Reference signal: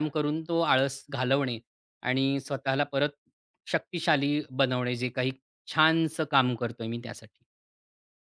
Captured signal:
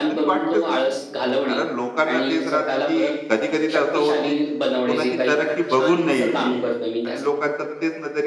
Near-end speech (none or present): present